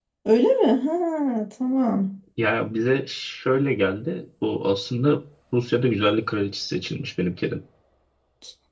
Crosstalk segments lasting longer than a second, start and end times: none

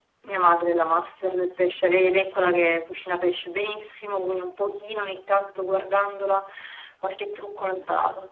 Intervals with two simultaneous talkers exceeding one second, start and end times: none

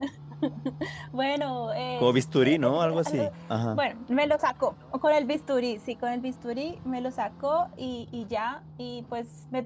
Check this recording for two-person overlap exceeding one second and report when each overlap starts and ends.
2.0-3.3

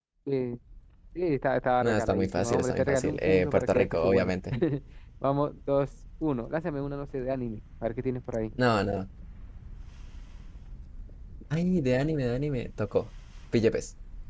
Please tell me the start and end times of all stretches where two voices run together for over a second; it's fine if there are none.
1.8-4.3

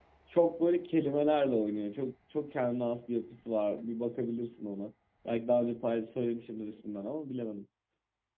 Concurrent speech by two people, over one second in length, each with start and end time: none

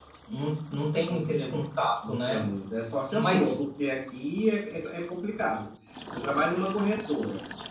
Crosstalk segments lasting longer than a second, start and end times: none

